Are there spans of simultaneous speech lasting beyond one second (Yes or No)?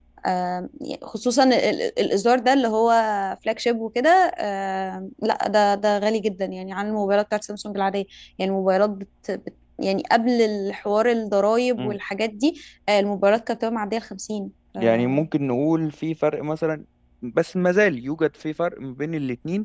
No